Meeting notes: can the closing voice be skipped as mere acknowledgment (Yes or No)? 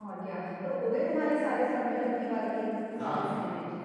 No